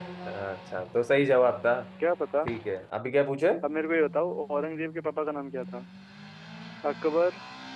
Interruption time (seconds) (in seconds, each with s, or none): none